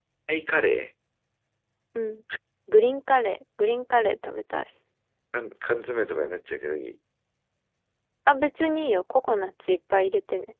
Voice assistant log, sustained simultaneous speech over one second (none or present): none